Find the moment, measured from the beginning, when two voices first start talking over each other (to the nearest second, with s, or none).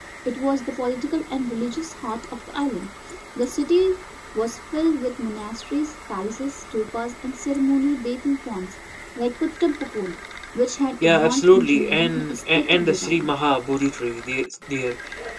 11 s